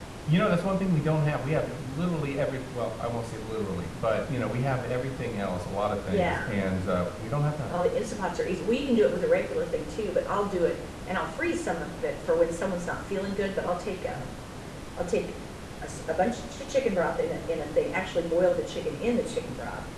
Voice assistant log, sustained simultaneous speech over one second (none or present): none